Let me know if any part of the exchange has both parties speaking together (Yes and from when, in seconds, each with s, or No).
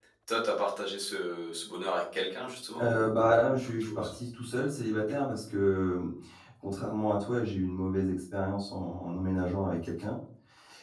Yes, from 2.8 s